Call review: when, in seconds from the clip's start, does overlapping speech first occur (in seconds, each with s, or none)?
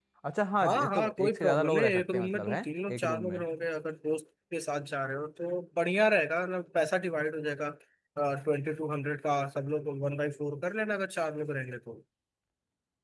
0.6 s